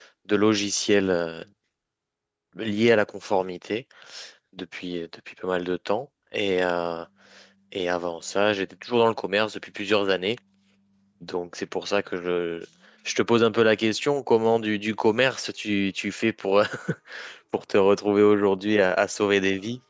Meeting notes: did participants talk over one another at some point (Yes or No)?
No